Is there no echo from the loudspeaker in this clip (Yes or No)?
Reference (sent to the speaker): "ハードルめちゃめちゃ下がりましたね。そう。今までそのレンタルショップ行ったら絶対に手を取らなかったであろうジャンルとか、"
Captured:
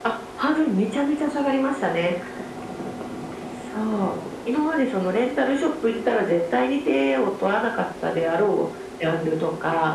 No